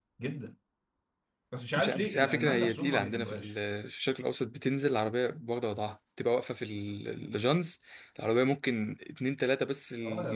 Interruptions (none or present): present